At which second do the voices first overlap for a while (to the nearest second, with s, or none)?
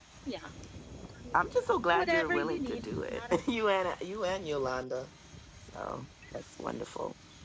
2 s